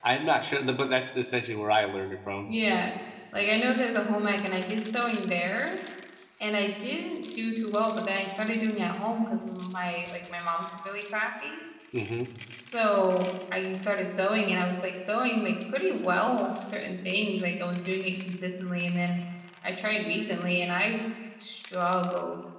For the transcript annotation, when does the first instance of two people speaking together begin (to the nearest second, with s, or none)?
none